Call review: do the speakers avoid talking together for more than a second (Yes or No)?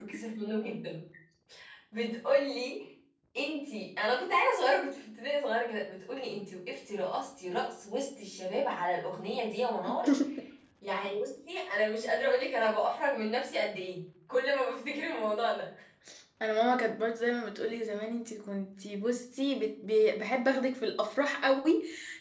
Yes